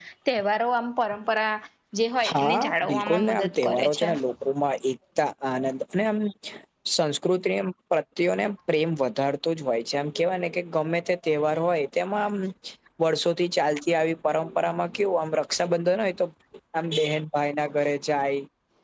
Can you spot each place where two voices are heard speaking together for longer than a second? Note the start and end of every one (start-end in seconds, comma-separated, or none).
2.3-4.1